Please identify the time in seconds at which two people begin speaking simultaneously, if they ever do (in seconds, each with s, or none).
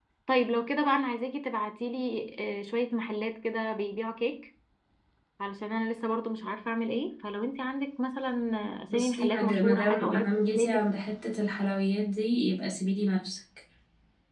8.9 s